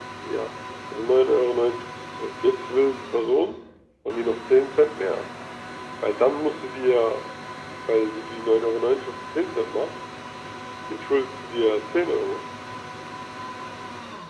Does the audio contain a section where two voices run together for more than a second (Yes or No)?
No